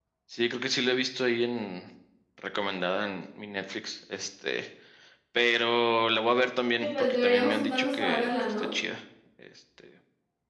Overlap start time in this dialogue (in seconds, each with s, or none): 6.8 s